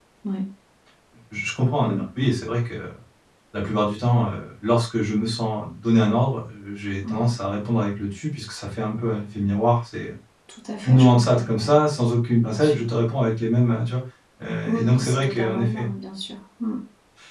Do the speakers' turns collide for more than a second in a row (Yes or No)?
Yes